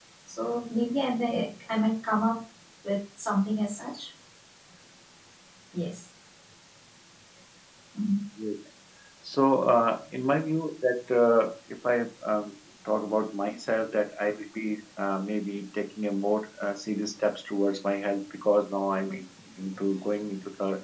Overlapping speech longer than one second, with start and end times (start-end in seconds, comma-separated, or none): none